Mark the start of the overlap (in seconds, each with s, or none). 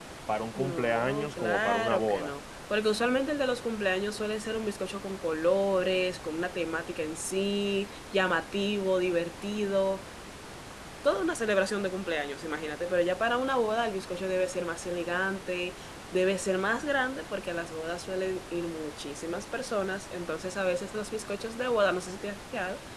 0.5 s